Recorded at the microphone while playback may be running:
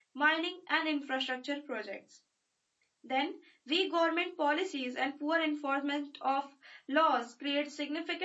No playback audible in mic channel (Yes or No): Yes